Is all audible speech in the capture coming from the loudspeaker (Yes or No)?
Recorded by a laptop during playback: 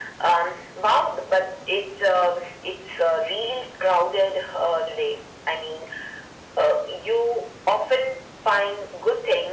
Yes